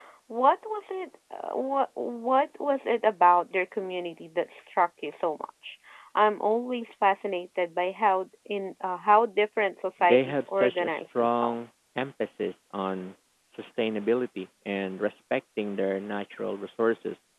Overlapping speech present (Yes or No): Yes